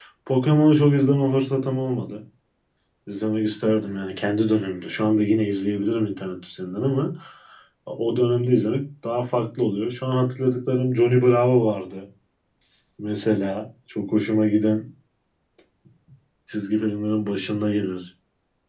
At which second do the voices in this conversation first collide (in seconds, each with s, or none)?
none